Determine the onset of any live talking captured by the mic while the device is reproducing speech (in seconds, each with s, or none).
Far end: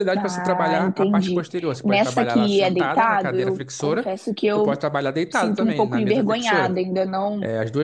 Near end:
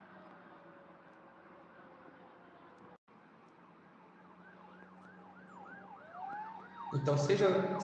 6.9 s